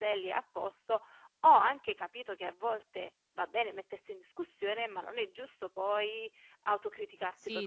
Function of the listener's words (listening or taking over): taking over